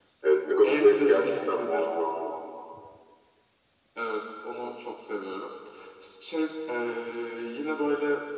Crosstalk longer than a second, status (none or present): present